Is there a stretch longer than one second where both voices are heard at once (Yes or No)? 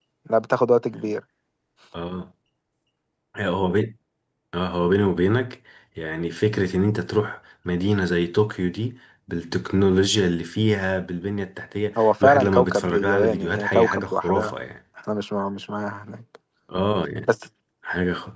Yes